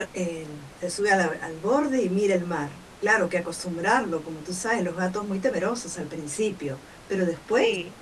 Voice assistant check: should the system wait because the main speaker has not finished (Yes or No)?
Yes